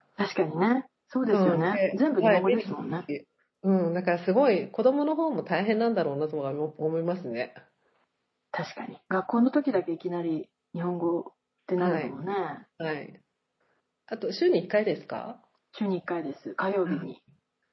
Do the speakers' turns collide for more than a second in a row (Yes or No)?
Yes